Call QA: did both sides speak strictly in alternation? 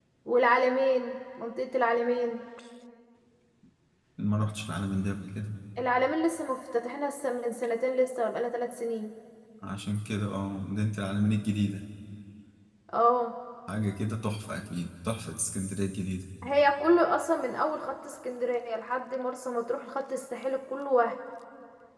Yes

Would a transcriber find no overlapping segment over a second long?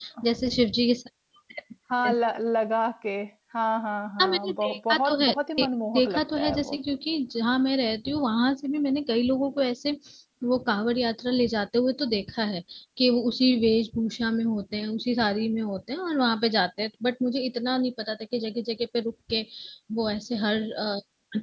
No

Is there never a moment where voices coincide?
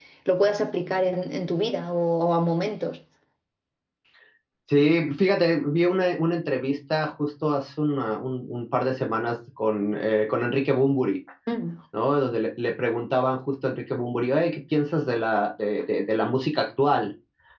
Yes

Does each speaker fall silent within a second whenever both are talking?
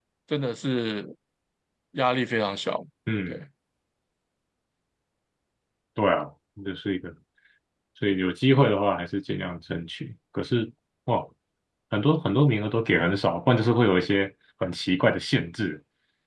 Yes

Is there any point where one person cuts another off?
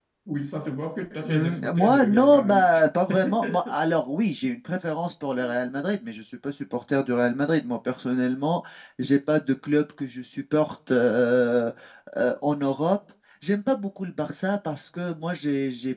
Yes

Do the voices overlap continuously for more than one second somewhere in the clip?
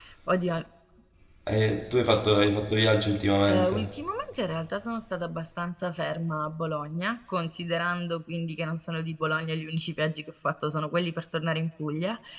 No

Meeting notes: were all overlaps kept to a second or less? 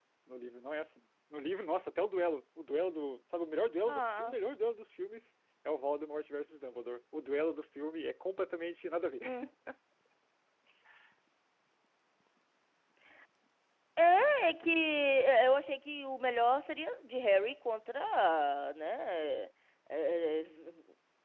Yes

